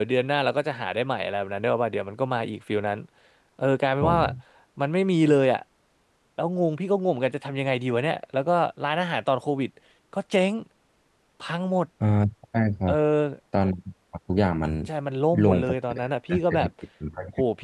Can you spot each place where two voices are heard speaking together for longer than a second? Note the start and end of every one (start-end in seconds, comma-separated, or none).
15.4-16.7